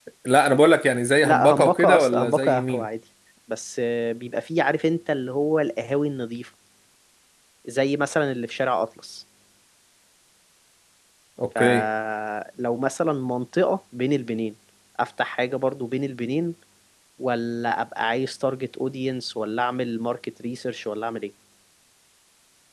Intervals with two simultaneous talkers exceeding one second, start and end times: 1.2-2.9

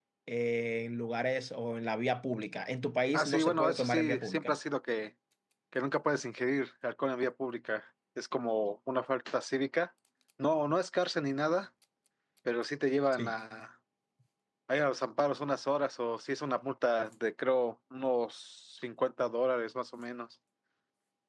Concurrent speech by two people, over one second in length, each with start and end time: 3.1-4.5

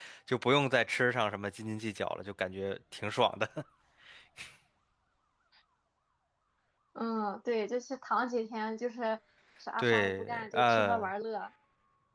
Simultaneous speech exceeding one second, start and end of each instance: 9.8-11.1

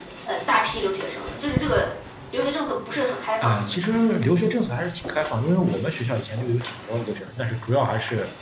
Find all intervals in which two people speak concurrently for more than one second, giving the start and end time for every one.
none

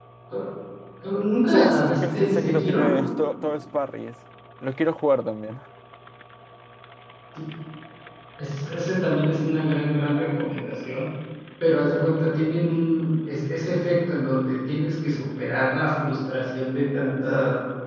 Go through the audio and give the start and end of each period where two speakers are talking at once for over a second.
1.5-2.9

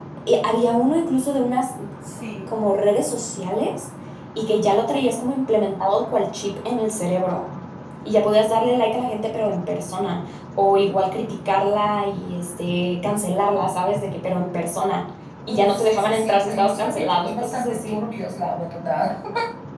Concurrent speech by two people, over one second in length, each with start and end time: 15.5-18.0

